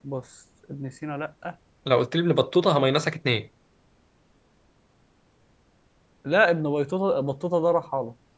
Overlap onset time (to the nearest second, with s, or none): none